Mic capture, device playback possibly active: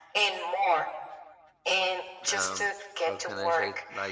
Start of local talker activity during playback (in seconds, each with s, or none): 2.3 s